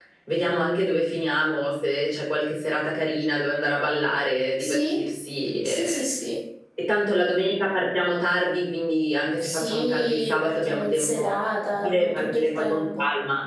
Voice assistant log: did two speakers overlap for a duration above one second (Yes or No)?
Yes